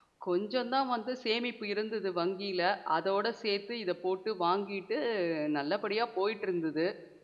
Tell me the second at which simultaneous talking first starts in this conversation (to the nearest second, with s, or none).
none